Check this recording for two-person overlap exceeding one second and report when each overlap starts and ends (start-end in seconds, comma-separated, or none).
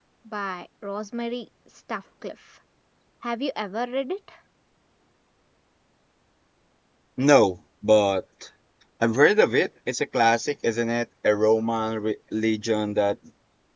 none